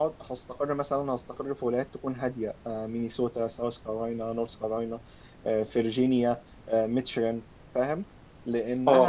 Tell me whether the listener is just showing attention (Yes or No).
Yes